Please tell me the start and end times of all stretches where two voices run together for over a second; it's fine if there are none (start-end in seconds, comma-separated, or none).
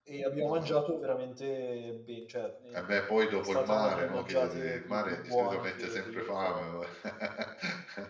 3.4-6.6